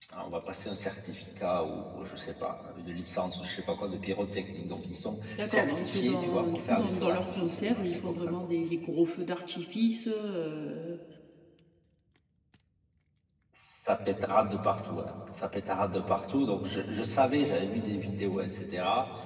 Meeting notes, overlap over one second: present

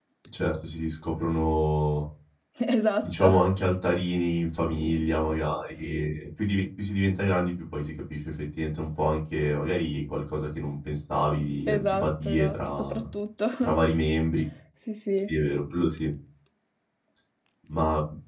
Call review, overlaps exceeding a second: present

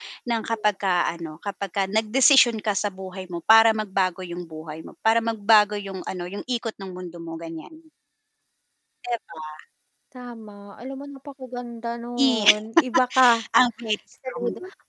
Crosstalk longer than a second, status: none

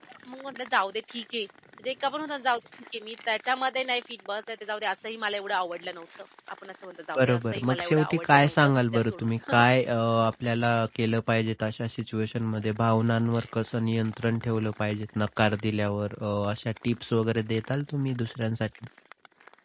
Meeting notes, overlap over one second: present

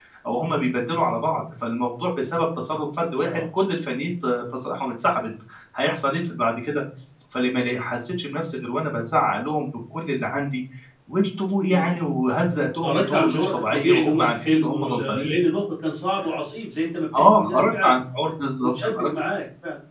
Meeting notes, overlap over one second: present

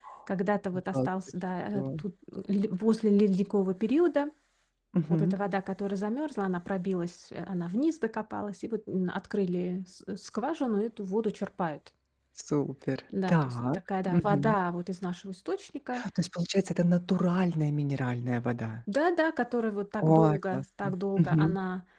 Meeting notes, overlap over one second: present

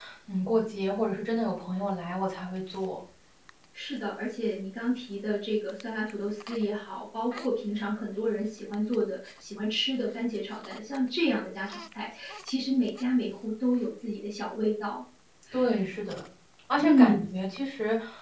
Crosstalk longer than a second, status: none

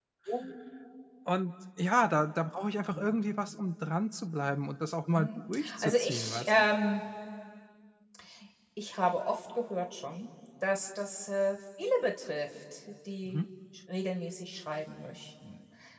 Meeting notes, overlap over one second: present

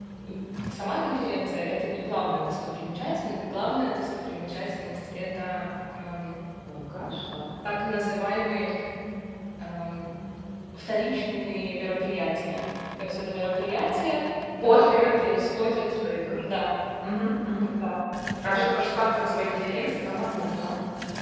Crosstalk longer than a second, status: present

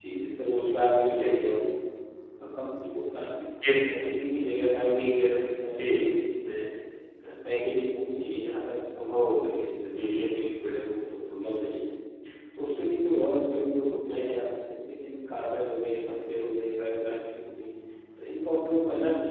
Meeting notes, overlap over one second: none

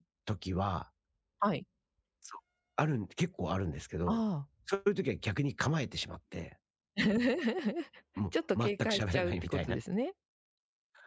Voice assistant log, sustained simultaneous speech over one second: present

